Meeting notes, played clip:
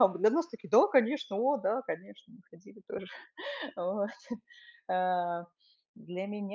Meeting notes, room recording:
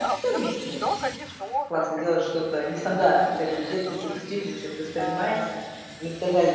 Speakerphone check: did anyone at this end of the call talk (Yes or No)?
Yes